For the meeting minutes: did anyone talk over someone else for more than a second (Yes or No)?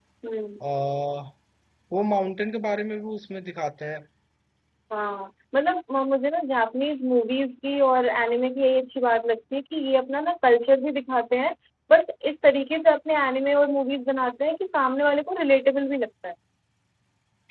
No